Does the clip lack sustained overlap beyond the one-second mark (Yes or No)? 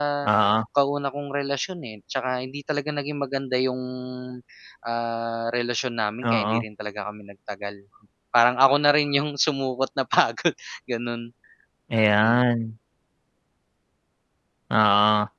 Yes